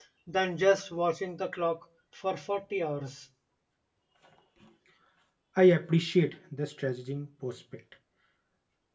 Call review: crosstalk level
none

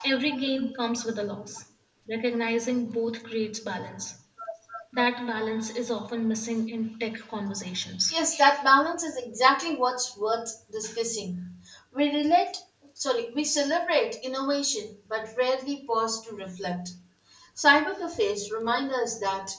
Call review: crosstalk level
none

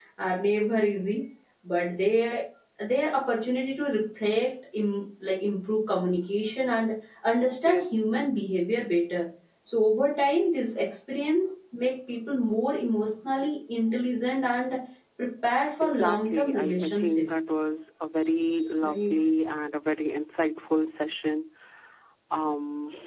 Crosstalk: present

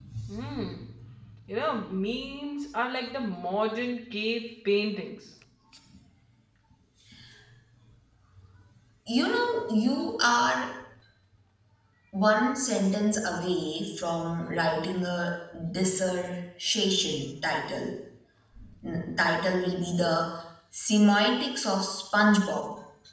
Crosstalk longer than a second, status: none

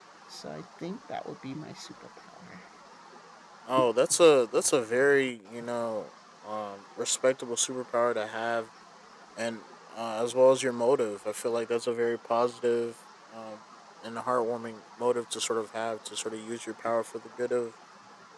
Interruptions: none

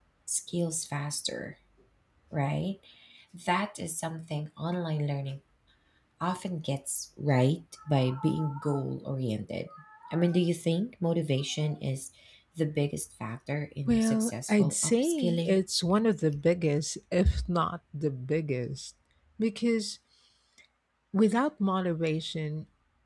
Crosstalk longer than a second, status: present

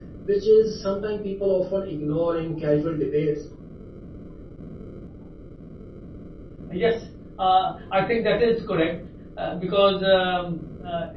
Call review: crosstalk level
none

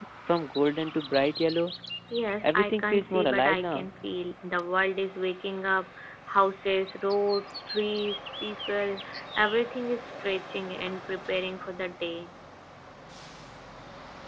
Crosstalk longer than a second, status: present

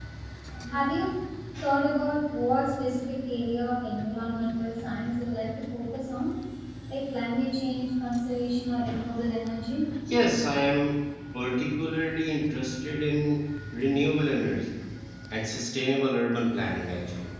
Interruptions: none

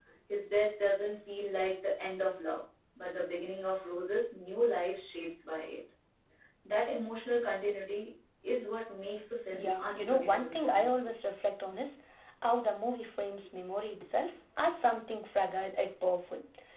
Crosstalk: present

